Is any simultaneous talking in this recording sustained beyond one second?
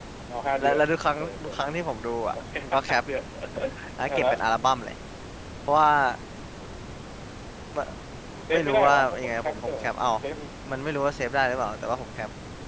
Yes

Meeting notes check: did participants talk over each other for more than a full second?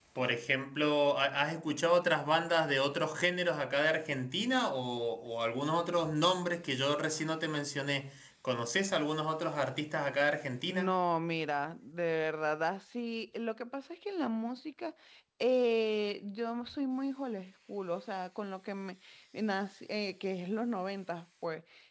No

